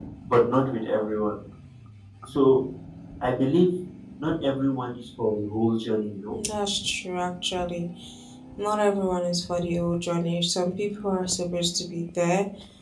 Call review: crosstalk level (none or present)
none